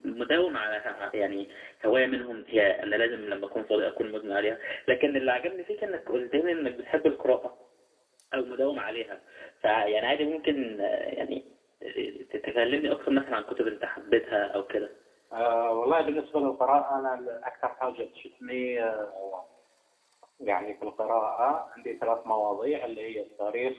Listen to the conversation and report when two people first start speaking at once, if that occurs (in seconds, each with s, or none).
none